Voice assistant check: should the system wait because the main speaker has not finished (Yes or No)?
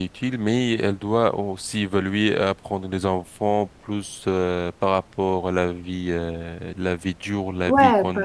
No